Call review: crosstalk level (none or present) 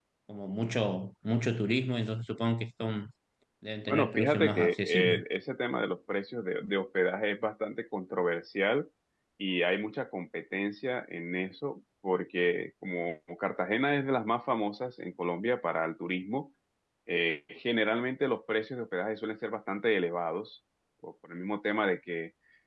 present